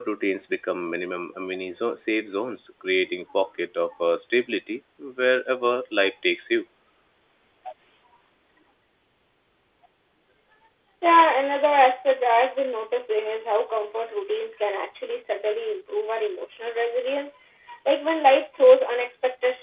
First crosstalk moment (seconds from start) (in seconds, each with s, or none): none